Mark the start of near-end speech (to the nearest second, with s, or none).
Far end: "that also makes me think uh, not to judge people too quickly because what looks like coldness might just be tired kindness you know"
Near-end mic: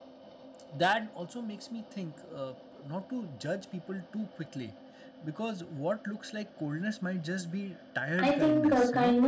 8 s